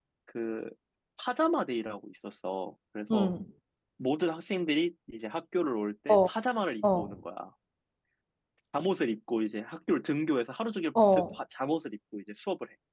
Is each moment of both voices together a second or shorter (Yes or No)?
Yes